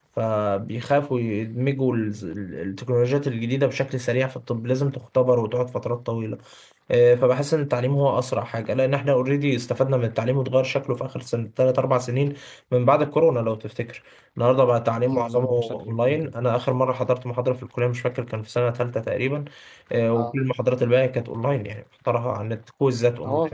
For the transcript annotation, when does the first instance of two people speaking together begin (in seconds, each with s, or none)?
15.1 s